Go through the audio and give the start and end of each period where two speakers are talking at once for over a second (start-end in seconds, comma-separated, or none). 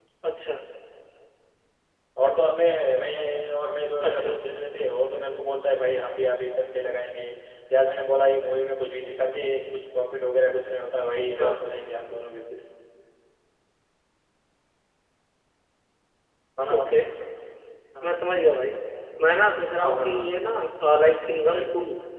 none